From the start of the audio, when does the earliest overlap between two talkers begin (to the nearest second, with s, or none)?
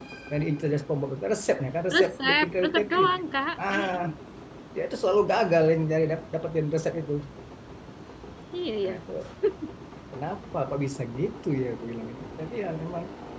2 s